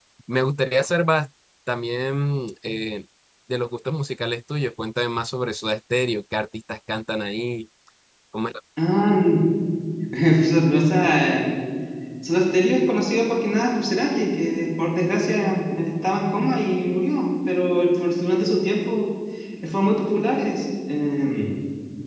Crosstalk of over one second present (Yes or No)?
No